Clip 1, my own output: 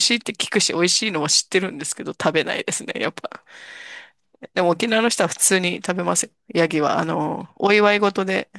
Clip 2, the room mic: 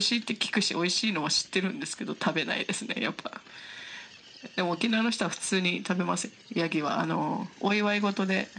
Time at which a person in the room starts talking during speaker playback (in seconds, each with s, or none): none